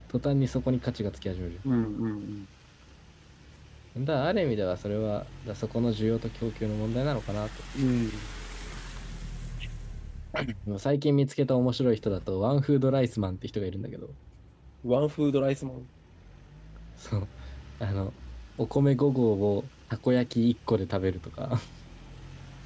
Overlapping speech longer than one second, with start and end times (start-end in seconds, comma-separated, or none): none